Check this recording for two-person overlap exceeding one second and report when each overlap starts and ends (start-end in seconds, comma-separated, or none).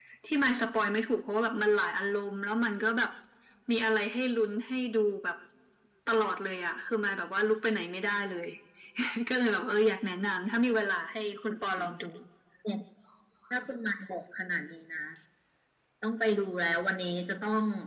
none